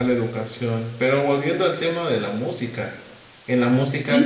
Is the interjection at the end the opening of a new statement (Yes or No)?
No